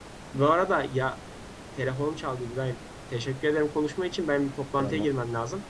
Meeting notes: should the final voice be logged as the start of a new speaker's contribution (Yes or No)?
No